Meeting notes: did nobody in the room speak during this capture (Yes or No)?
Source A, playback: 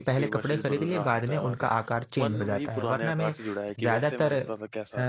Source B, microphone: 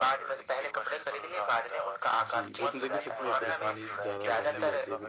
No